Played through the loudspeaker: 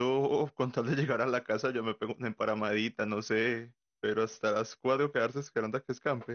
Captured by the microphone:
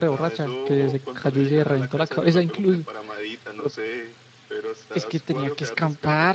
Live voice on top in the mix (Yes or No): Yes